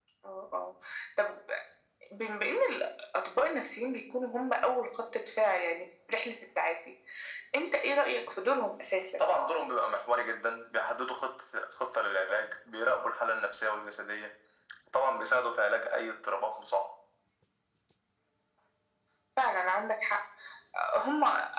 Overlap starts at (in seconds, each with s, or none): none